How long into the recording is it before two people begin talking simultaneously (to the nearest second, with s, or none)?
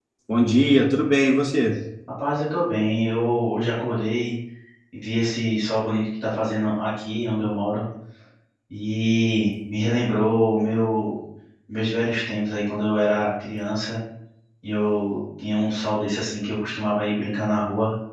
none